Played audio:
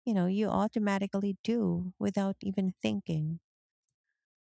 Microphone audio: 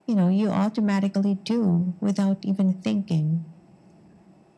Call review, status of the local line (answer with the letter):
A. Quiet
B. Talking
A